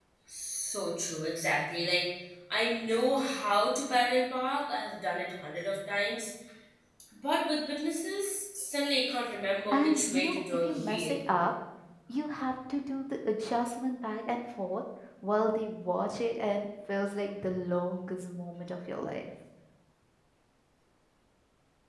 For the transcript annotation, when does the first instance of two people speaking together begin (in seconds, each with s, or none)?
9.7 s